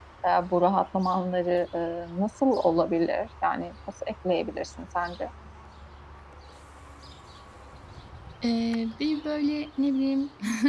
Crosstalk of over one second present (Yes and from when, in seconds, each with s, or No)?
No